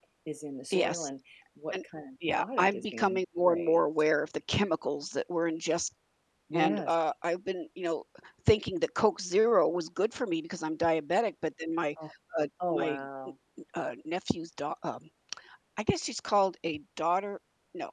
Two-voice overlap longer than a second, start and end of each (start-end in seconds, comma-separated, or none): 2.3-3.8